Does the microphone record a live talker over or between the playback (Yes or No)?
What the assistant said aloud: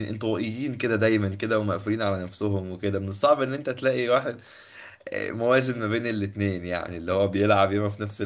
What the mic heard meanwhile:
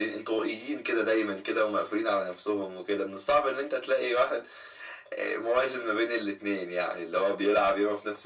No